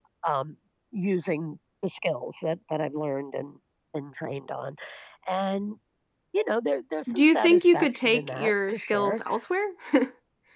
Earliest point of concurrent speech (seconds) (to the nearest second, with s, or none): 7 s